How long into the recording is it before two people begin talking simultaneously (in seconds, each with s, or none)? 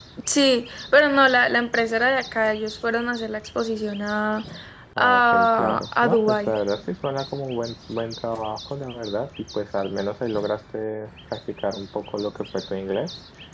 5.0 s